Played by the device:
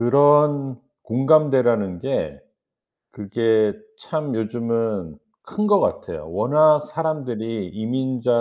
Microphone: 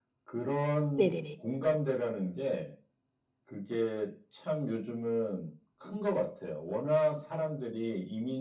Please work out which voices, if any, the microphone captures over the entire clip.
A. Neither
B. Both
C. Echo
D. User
B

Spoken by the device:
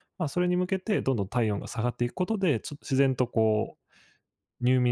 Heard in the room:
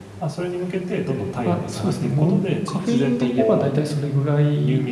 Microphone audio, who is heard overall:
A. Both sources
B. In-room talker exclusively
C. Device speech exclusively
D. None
A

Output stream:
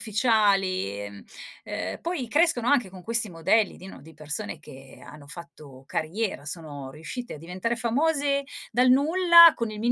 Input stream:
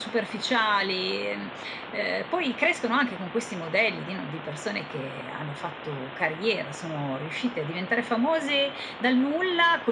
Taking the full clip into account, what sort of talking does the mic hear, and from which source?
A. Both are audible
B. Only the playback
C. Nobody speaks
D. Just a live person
B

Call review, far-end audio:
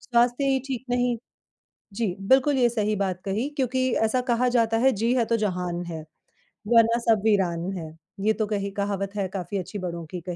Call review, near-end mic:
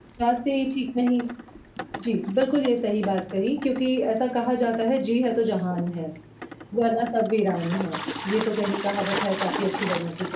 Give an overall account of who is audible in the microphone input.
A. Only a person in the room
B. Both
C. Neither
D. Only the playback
D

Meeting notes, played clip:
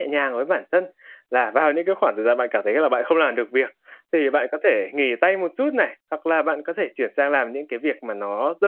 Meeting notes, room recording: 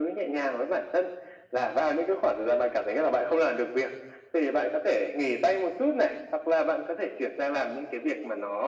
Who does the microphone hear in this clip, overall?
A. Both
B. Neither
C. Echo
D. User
C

